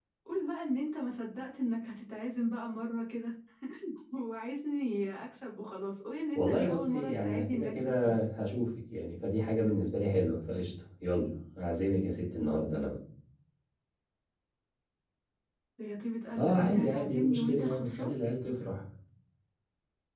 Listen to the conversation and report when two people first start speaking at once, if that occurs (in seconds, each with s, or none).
6.3 s